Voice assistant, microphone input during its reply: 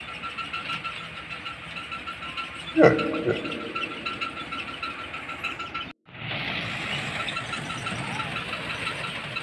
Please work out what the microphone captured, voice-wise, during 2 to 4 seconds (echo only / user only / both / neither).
user only